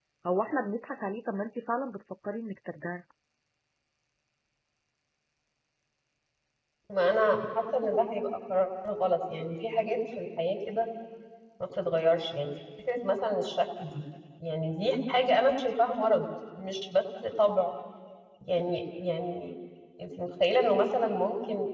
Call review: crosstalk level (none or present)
none